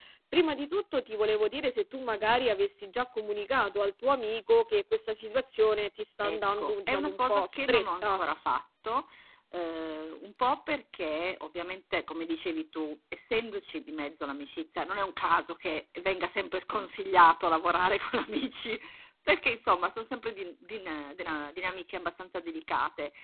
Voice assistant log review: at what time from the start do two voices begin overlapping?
6.2 s

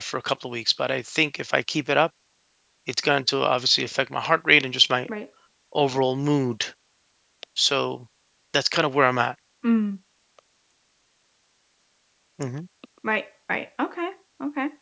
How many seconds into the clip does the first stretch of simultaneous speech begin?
none

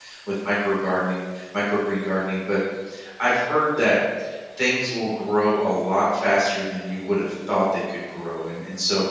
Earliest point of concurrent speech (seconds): none

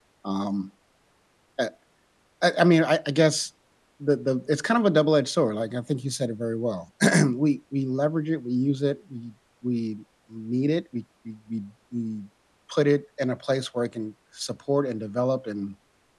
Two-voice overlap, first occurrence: none

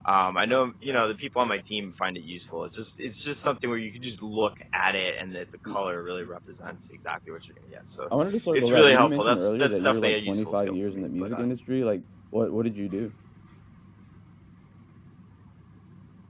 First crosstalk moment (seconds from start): 8.5 s

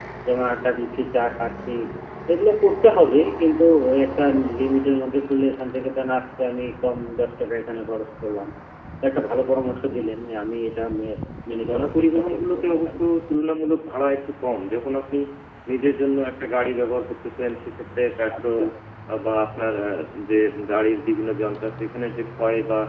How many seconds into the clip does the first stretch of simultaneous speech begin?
11.7 s

